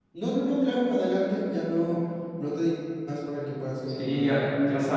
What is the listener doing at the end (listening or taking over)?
taking over